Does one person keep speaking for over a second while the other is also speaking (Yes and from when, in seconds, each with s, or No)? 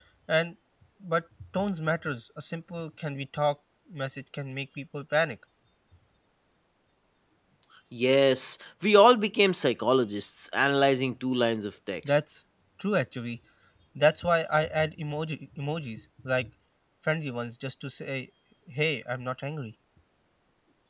No